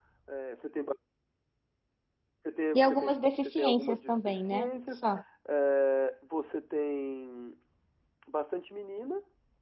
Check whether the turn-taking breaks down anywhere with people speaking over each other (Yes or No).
Yes